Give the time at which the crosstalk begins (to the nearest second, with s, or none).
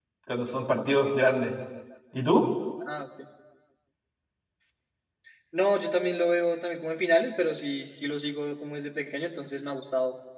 none